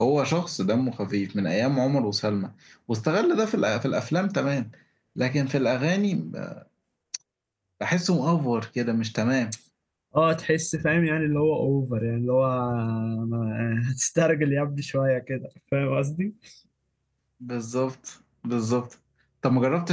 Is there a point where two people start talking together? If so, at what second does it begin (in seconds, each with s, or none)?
none